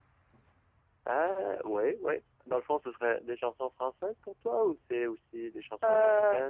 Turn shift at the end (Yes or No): Yes